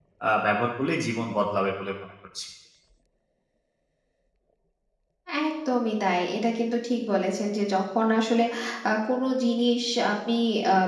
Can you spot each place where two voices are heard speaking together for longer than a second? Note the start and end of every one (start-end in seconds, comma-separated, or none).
none